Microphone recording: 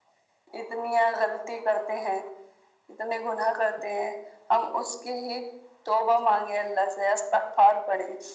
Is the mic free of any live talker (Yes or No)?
Yes